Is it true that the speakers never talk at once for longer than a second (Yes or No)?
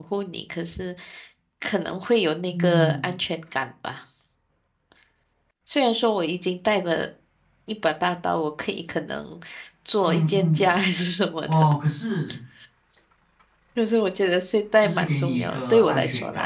No